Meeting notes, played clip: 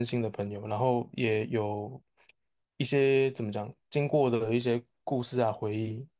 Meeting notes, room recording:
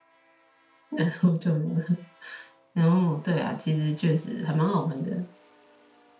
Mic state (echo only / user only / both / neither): user only